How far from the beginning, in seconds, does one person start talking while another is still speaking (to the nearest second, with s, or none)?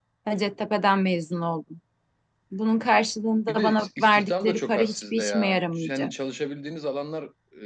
3 s